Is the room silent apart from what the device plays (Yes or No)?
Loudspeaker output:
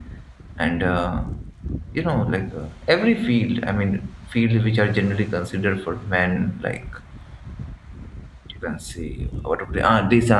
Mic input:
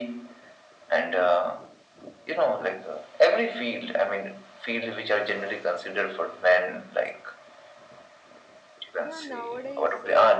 No